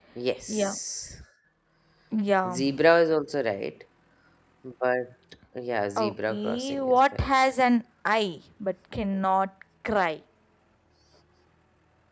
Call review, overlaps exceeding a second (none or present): present